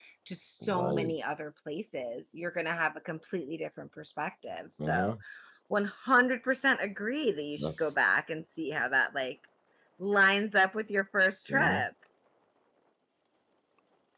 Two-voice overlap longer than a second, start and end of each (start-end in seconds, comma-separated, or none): none